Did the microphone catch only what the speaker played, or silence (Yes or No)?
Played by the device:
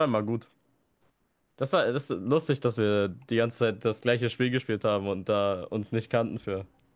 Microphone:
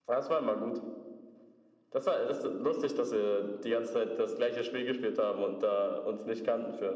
Yes